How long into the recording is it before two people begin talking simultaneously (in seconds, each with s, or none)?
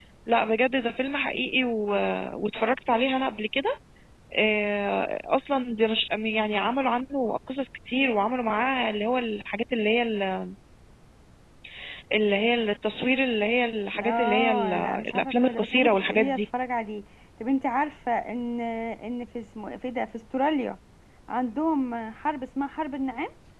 13.9 s